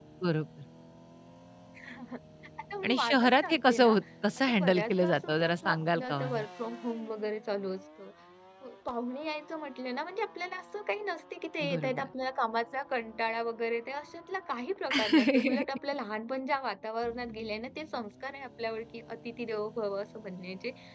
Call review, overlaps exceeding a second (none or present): present